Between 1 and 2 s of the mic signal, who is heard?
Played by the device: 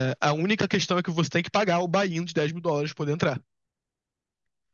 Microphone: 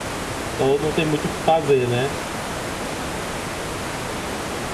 user only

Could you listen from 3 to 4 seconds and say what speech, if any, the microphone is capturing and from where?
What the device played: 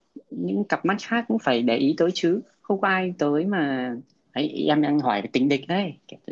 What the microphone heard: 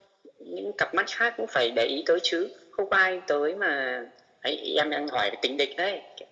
echo only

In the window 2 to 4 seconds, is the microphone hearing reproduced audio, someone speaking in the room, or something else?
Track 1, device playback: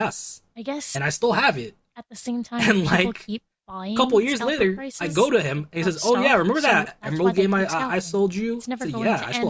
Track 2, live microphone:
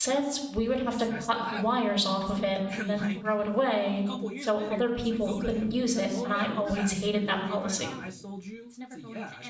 both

